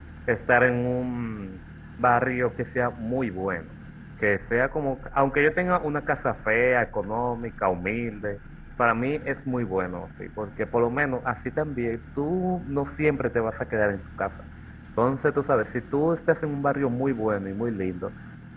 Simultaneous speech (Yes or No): No